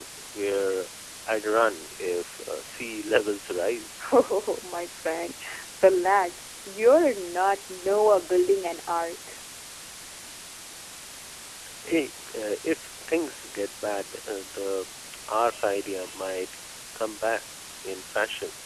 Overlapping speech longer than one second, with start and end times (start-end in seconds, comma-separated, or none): none